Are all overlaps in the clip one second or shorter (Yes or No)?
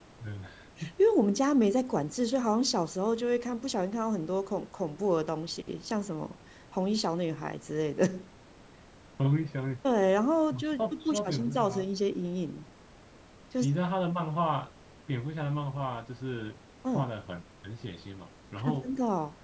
No